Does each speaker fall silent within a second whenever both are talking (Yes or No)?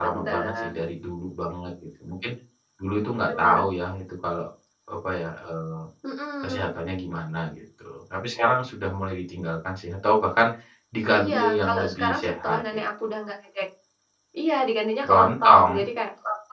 No